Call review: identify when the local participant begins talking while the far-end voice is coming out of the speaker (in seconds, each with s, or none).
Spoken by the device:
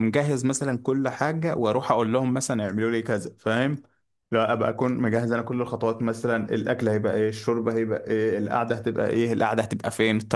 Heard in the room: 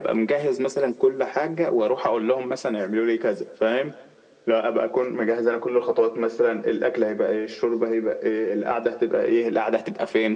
none